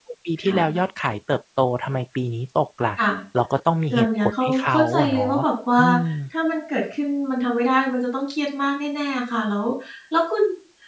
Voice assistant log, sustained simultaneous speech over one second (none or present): present